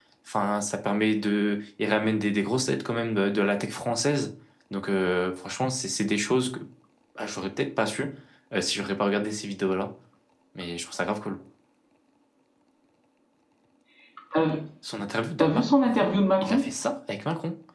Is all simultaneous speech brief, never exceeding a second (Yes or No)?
No